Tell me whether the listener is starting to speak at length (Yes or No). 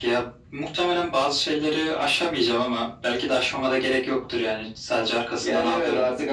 Yes